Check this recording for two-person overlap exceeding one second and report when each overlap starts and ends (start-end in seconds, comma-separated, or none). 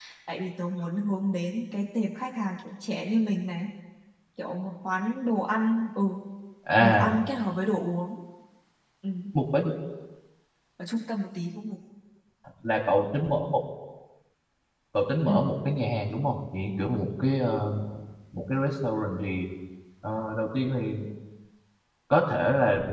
none